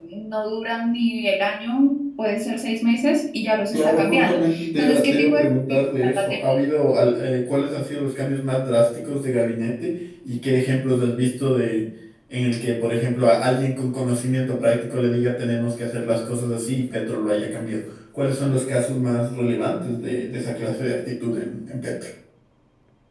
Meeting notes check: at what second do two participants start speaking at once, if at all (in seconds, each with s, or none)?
3.7 s